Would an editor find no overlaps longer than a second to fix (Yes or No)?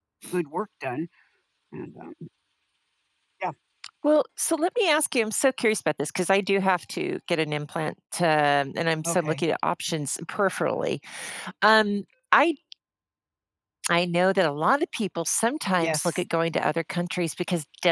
Yes